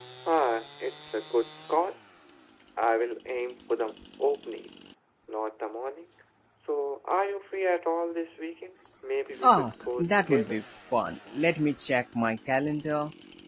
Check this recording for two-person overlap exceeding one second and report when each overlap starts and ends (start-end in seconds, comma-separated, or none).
9.4-10.6